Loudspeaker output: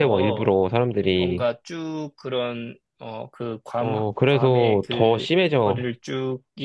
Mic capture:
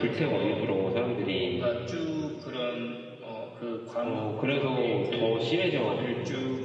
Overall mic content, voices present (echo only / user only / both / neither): echo only